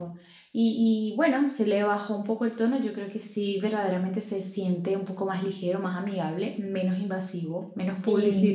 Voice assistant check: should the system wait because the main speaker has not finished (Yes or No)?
No